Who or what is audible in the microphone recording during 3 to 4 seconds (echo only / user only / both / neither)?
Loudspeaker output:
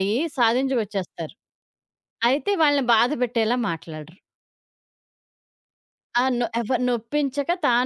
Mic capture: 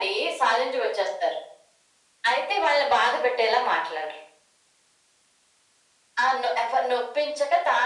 echo only